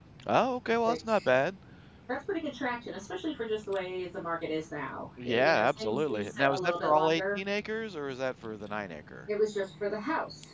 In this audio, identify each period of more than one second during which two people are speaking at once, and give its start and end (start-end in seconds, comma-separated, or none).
5.2-7.4